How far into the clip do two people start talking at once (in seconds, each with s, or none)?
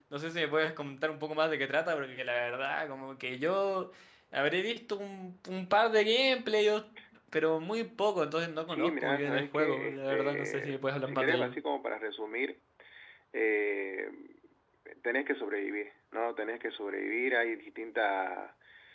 8.6 s